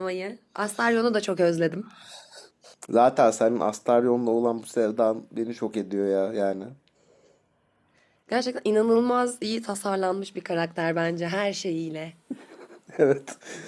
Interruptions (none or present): none